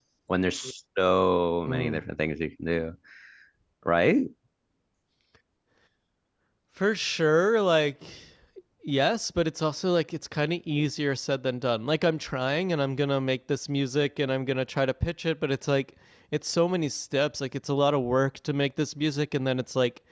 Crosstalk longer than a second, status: none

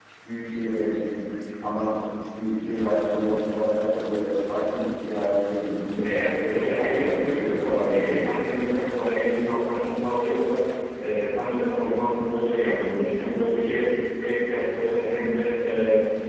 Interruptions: present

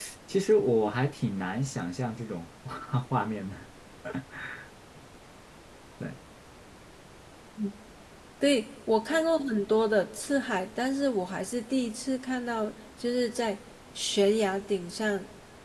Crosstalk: none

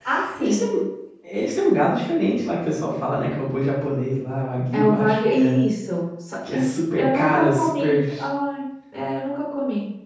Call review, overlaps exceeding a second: present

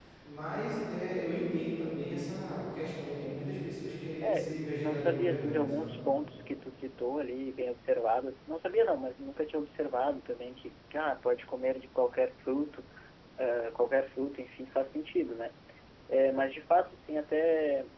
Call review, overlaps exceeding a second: present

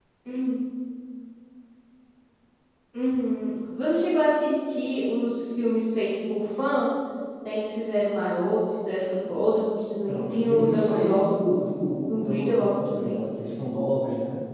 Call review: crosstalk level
present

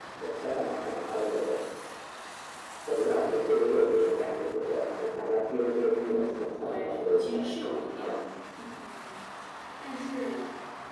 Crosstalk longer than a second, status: present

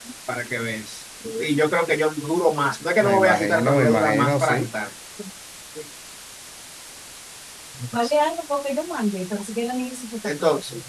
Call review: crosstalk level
present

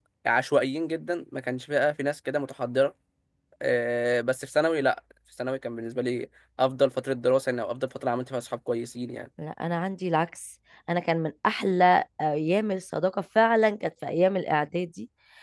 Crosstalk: none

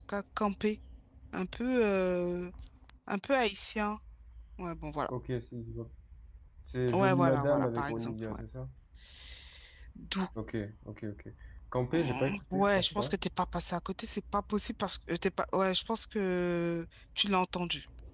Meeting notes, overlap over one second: present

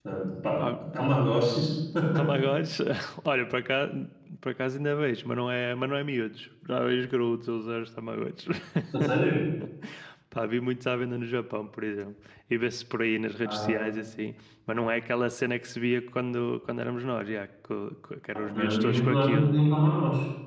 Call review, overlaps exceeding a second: present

